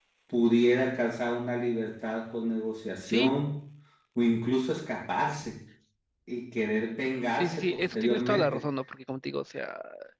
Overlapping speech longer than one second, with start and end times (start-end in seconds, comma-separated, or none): 7.3-8.7